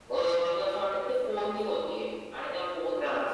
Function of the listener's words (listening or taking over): listening